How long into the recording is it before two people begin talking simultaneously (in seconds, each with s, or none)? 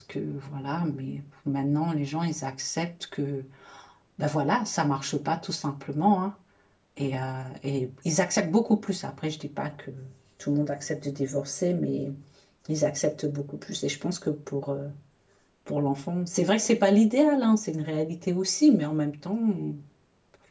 none